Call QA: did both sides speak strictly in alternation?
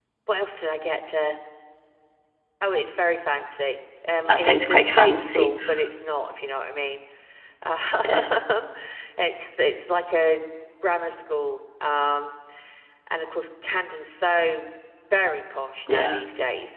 No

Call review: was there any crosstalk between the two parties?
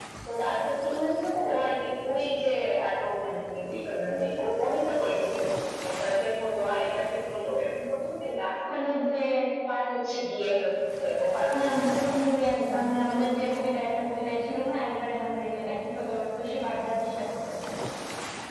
No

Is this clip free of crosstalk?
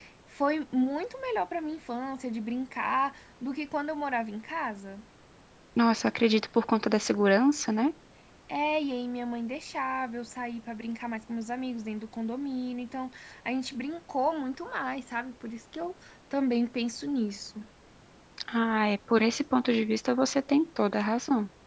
Yes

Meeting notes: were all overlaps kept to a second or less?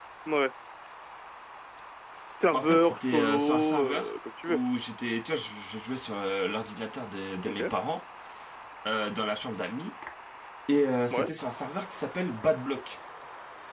No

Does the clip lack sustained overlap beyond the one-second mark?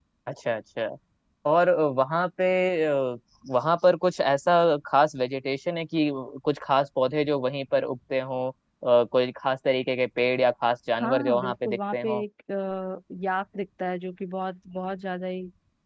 No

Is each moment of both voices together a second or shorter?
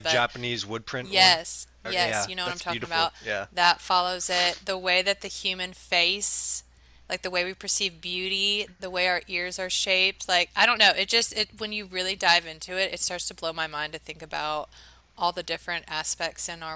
No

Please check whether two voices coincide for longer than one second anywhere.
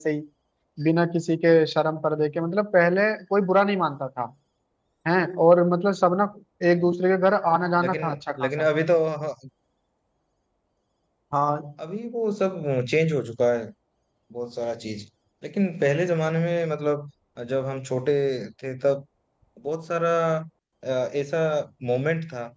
No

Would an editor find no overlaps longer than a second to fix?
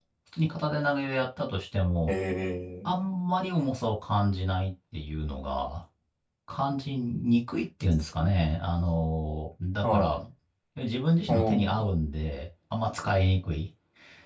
Yes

